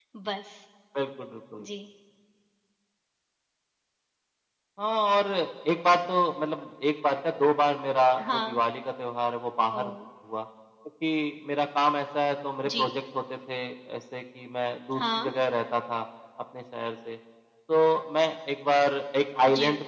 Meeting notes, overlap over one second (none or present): none